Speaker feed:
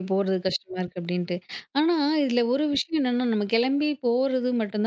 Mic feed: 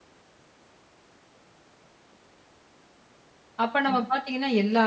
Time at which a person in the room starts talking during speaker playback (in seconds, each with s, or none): 3.6 s